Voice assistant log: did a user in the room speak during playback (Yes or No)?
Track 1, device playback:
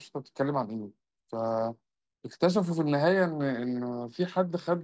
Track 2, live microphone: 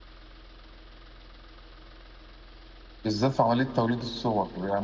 Yes